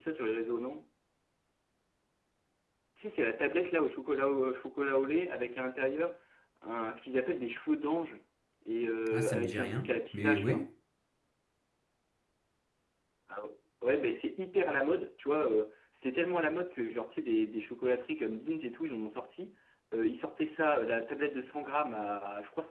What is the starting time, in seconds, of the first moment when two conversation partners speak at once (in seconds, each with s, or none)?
9.1 s